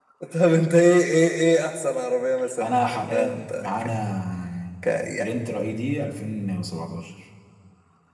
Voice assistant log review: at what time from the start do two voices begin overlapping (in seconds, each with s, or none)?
2.6 s